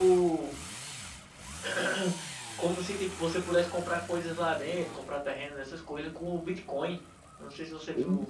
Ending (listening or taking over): listening